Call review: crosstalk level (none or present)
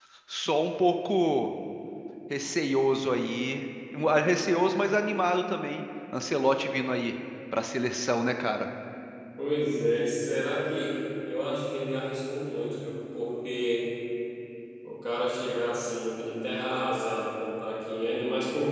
none